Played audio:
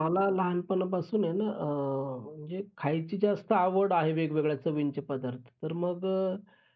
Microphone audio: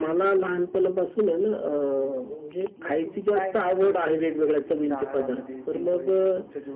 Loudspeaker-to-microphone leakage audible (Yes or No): Yes